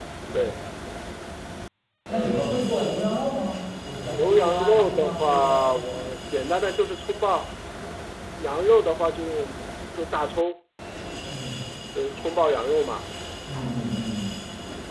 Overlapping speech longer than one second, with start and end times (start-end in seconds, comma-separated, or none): 4.1-6.0